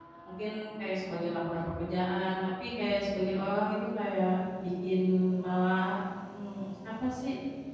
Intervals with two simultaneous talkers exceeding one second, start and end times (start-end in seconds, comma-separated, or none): none